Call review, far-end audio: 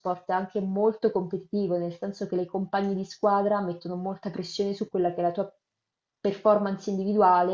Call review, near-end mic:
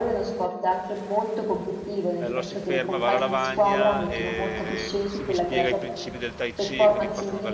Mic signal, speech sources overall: both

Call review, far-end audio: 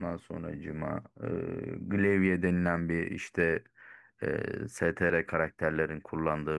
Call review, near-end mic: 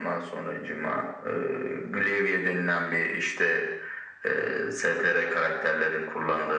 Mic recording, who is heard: echo only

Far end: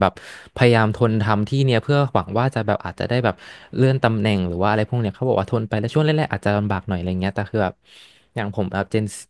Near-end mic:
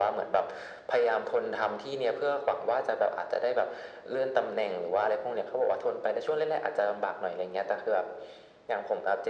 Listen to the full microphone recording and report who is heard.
echo only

